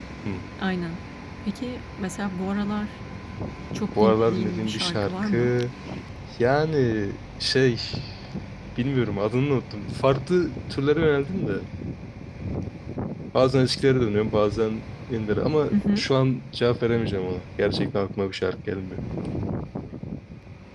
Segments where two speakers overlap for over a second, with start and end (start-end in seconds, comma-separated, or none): 4.0-5.5